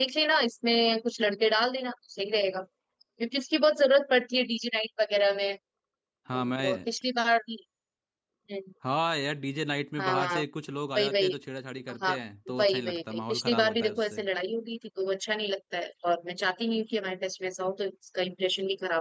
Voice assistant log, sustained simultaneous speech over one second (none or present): present